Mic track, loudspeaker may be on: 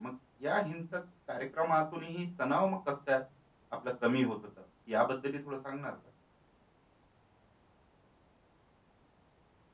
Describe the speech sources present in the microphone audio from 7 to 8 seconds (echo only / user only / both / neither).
neither